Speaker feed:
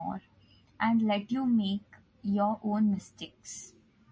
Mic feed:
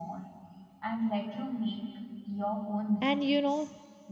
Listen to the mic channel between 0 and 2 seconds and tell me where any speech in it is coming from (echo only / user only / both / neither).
echo only